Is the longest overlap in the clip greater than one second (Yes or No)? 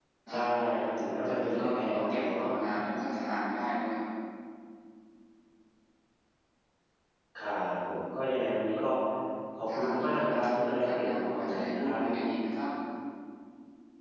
Yes